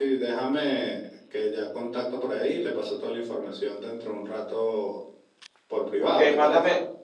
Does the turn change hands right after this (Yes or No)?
Yes